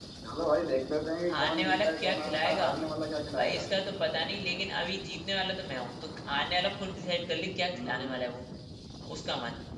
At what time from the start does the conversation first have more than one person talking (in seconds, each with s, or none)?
1.3 s